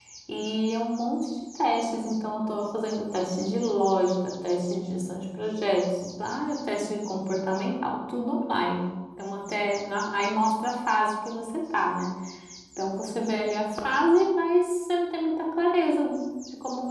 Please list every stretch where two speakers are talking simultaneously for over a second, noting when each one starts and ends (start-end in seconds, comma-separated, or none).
none